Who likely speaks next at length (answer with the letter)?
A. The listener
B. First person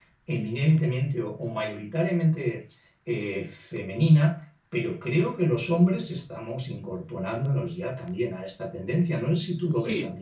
A